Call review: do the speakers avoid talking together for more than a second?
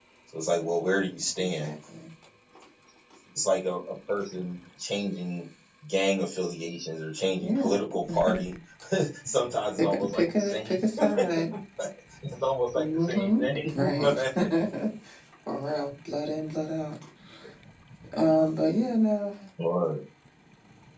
No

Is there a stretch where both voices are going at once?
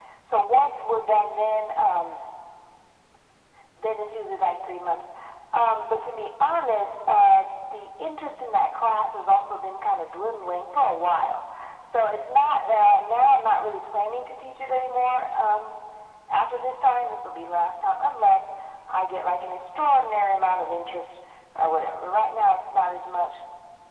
No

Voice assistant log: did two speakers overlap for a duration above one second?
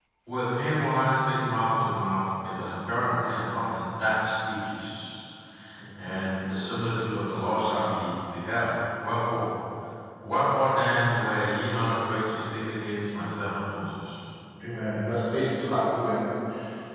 No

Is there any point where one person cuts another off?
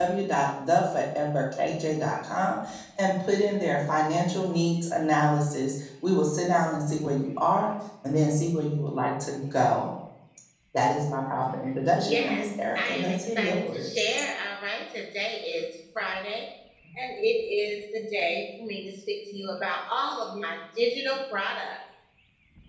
Yes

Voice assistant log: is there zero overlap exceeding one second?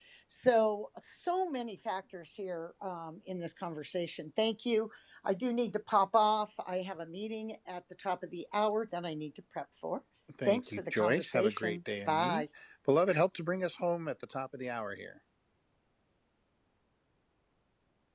No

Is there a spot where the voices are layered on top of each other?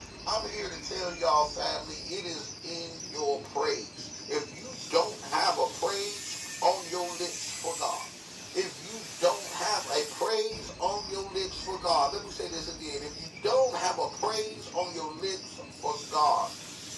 No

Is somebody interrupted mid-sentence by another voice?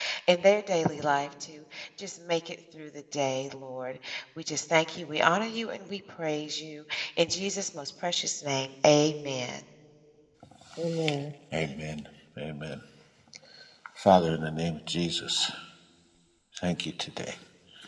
No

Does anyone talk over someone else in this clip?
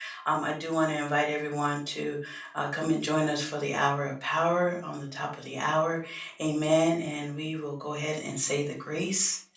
No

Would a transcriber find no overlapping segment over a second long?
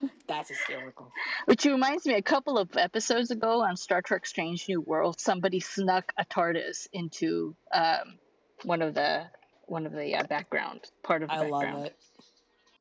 Yes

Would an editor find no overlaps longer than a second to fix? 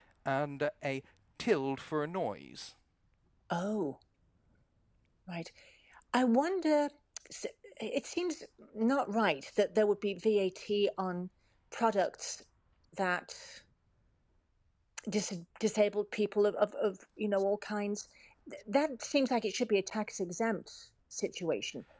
Yes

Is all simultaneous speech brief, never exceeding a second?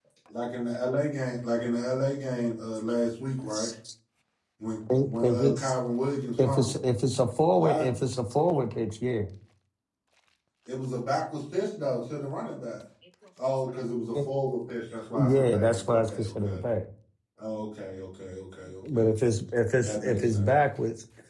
No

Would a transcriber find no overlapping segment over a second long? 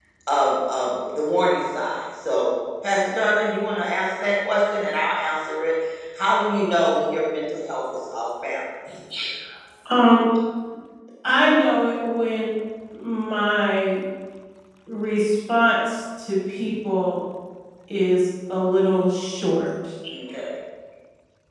Yes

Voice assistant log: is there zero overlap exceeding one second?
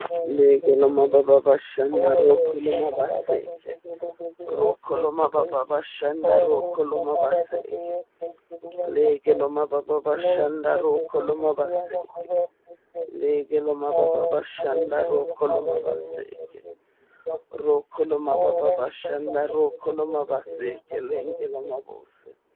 No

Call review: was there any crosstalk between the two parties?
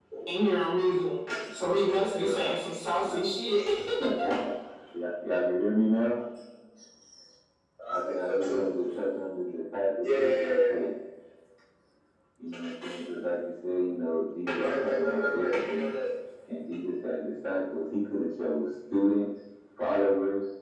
Yes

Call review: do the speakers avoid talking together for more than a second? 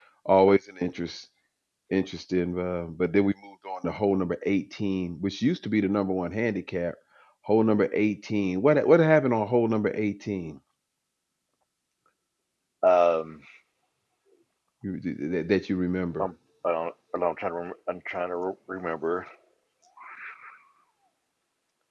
Yes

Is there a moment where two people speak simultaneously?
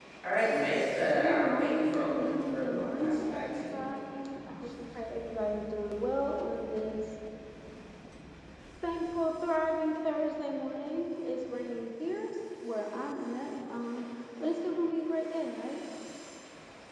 Yes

